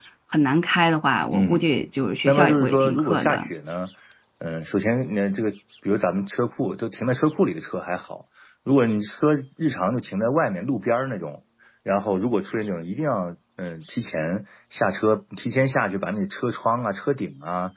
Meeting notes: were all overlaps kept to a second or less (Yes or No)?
No